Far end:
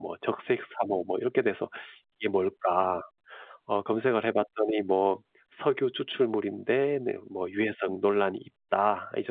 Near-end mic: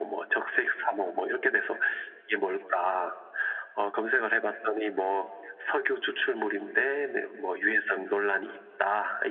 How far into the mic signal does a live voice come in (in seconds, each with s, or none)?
none